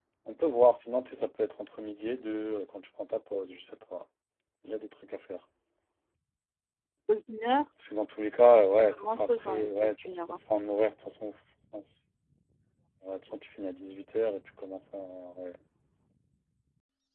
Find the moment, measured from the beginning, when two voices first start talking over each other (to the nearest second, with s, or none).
9 s